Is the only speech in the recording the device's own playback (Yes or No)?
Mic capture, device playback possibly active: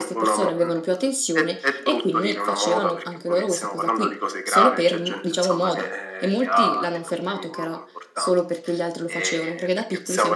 No